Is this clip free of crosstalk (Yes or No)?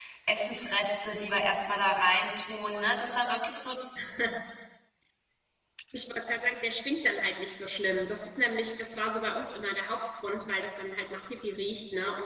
Yes